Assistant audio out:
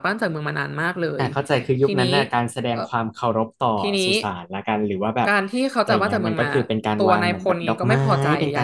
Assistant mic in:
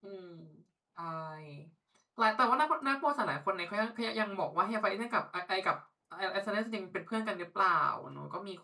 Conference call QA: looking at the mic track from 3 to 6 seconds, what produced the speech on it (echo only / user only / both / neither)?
user only